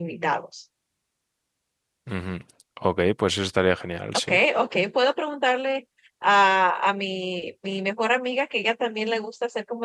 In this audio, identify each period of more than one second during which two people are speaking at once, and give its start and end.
none

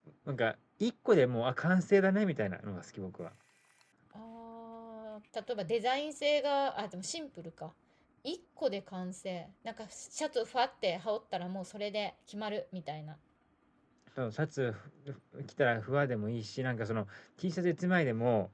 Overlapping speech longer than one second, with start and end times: none

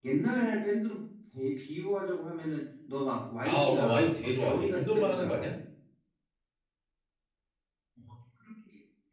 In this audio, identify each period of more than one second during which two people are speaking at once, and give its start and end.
3.4-5.5

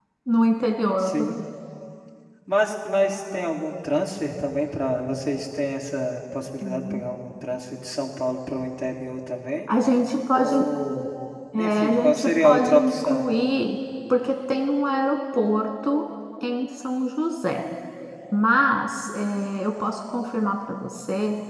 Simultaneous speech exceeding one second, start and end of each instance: 11.6-13.3

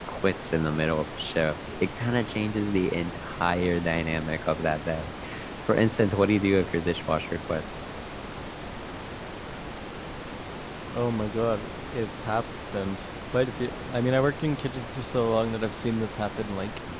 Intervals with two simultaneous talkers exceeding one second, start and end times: none

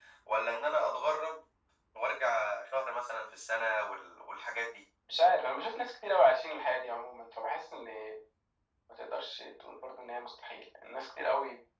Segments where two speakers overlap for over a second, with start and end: none

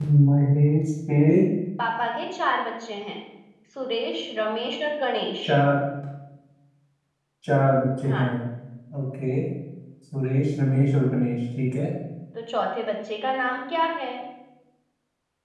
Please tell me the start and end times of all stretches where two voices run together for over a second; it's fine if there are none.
none

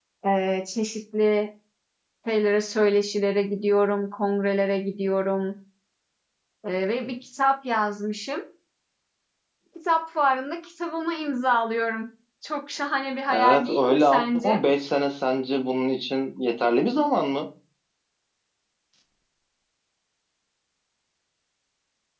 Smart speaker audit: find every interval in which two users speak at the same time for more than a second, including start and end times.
13.3-14.6

